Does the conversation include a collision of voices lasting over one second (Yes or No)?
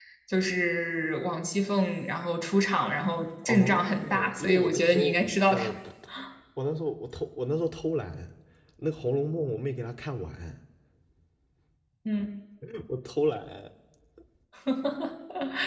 Yes